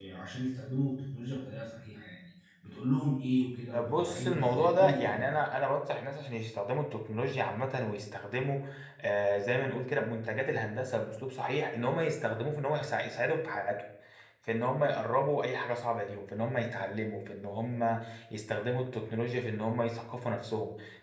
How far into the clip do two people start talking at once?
3.7 s

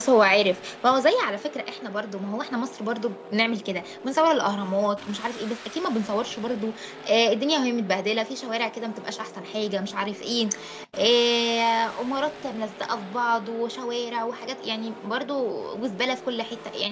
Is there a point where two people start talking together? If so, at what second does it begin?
none

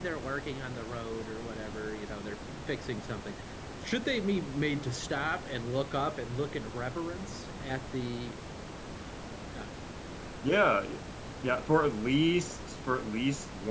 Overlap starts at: none

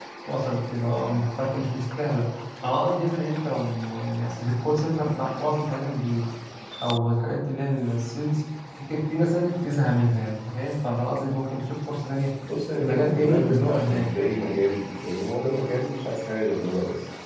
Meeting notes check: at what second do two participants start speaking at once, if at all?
12.8 s

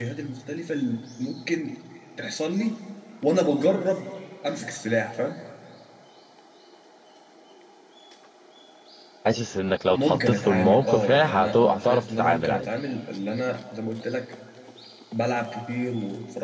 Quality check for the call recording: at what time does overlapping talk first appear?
9.9 s

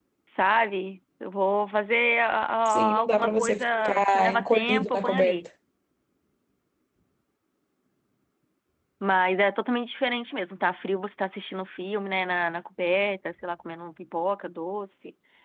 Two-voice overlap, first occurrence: 2.6 s

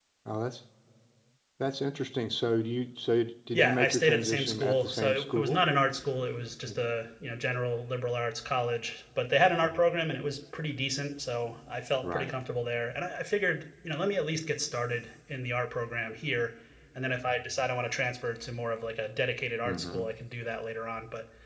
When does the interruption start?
3.5 s

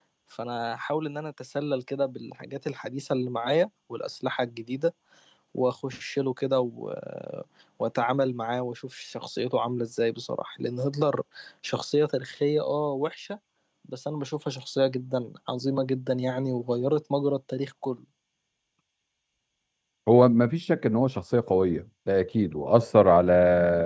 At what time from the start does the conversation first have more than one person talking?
none

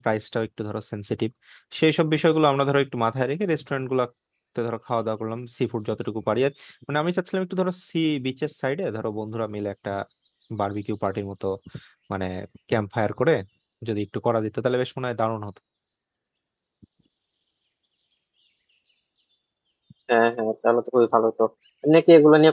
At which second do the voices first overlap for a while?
none

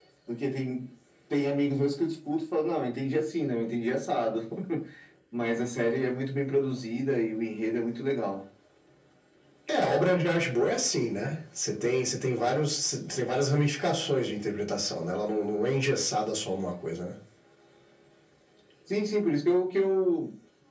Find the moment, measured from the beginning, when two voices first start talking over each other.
none

